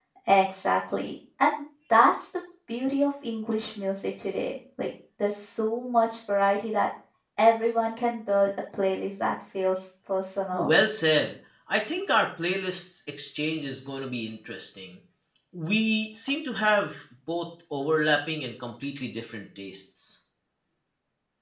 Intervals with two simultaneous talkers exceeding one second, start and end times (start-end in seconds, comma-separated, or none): none